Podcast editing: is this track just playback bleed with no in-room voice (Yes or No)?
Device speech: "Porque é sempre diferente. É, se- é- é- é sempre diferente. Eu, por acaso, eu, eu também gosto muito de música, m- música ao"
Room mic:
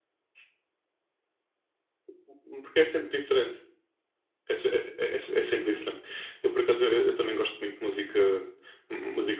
Yes